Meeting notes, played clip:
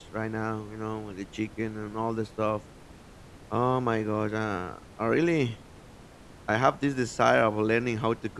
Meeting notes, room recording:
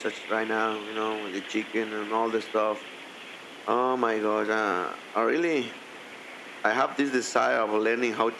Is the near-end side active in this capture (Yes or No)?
No